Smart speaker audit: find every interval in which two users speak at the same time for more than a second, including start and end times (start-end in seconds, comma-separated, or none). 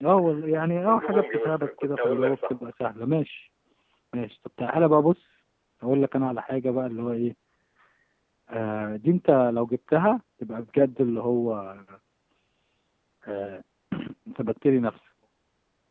0.8-2.6